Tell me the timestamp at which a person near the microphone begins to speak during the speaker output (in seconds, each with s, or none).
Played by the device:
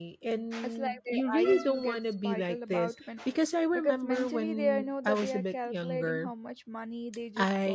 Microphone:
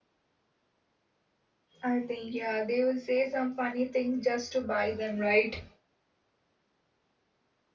1.8 s